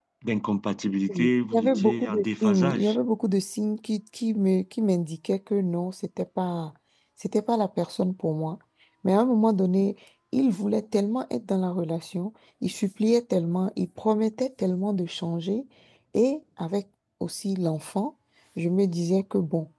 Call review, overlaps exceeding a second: present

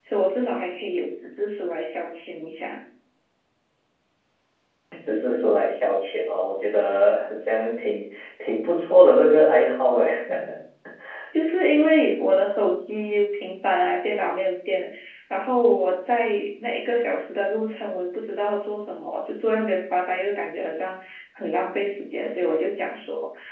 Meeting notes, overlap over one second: none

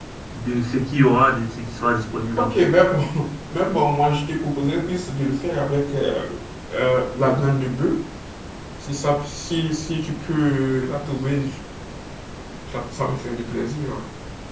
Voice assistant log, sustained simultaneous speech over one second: none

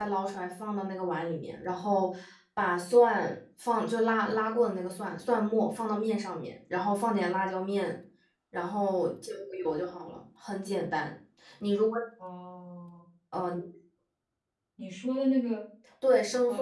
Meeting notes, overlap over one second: none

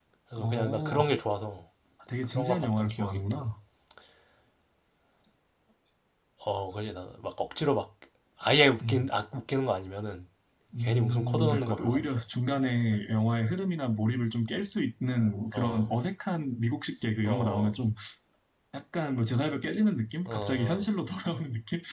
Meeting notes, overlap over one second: present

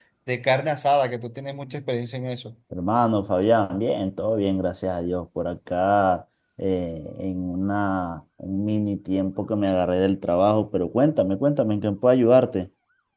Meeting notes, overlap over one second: none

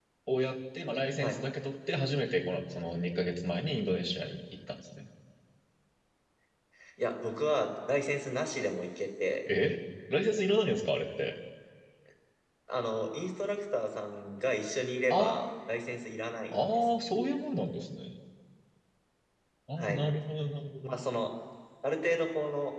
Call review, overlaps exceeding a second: none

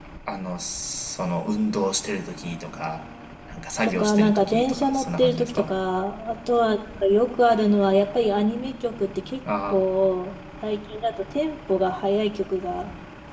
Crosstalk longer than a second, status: present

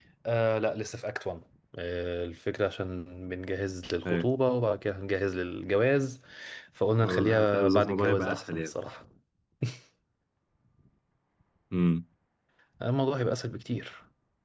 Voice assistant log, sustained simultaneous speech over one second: present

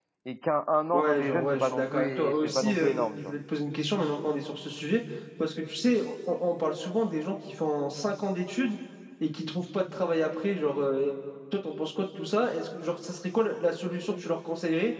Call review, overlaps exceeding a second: present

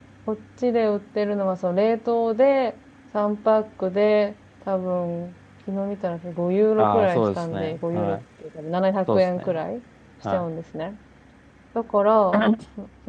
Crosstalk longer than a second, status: present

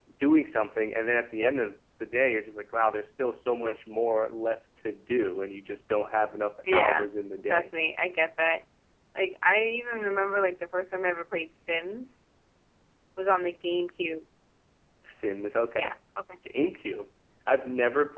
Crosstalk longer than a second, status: none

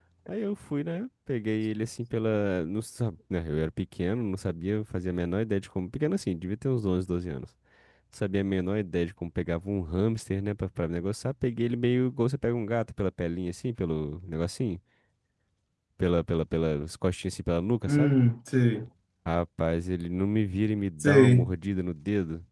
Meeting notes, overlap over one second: none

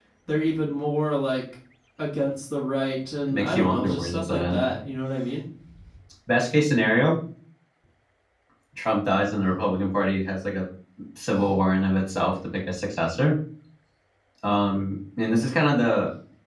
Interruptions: present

